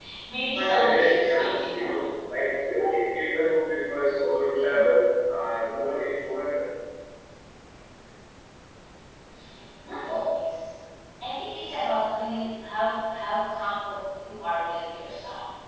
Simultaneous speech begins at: 0.6 s

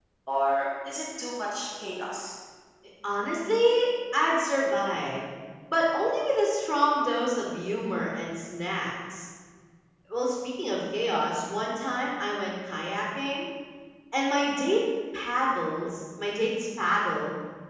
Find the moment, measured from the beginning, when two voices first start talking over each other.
none

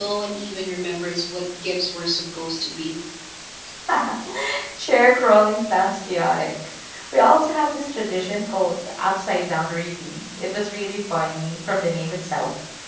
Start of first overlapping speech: none

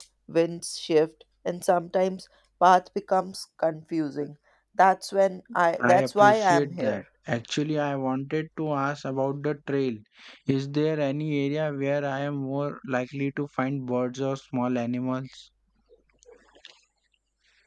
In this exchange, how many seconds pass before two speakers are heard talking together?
5.8 s

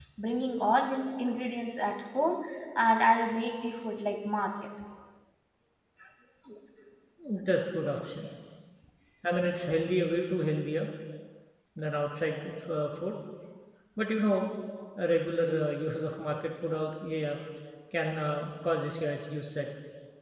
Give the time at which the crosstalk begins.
none

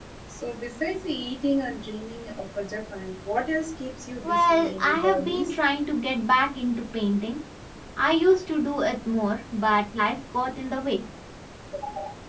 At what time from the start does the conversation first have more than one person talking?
4.2 s

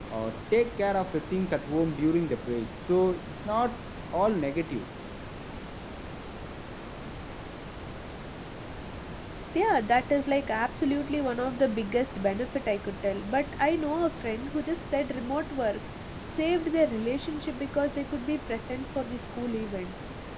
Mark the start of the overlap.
none

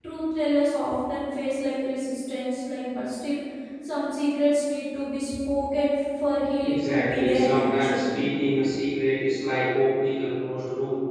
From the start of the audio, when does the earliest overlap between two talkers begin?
6.6 s

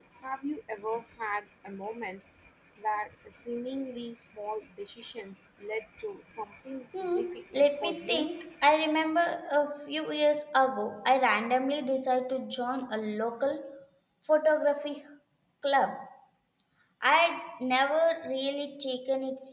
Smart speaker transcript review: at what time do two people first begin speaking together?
6.9 s

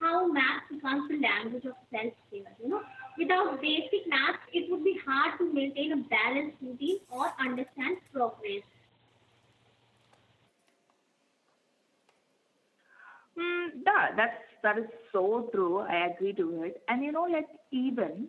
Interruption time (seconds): none

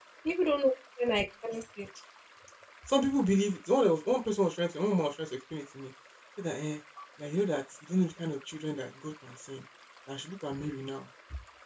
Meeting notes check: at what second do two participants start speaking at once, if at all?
none

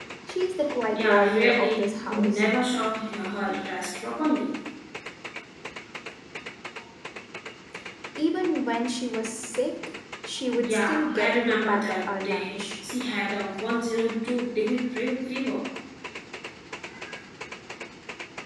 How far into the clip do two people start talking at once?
0.9 s

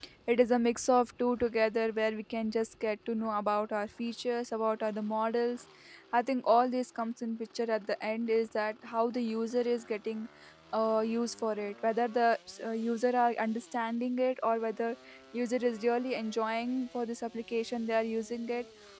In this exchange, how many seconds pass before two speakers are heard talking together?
none

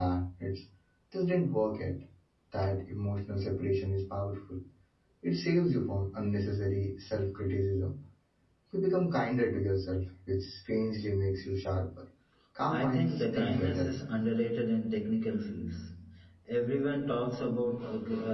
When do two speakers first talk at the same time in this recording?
12.7 s

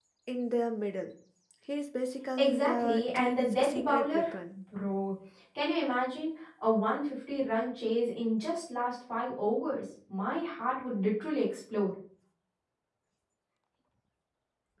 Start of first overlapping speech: 2.4 s

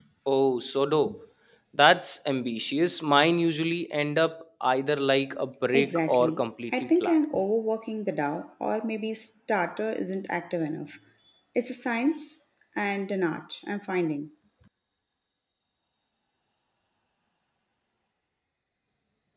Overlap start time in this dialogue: 5.7 s

